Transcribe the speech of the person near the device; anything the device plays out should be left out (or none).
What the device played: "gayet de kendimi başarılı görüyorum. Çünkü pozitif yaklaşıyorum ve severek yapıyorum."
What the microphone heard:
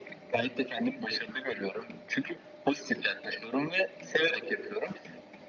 none